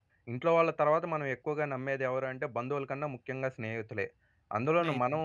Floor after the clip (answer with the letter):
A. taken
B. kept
B